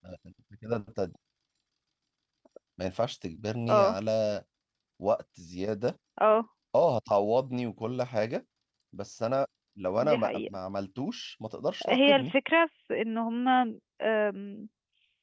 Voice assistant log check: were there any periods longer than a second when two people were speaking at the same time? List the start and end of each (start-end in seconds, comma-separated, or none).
none